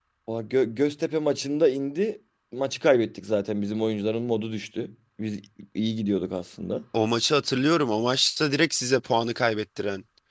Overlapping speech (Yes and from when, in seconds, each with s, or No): No